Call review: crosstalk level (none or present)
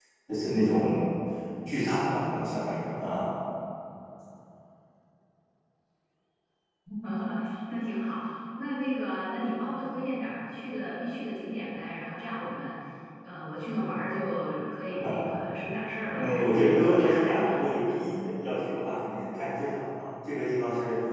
present